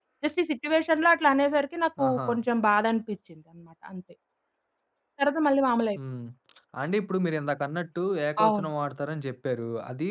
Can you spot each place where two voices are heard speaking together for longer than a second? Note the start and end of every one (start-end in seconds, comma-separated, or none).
none